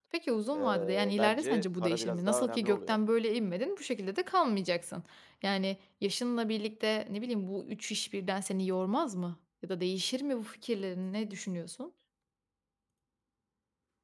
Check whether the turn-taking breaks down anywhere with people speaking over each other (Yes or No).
Yes